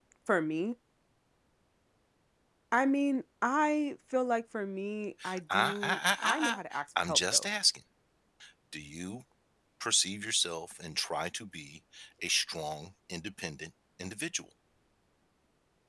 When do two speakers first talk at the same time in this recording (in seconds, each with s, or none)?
5.5 s